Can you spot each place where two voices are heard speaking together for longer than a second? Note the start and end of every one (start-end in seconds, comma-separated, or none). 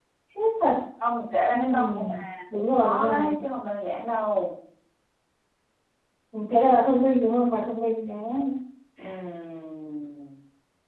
1.5-3.3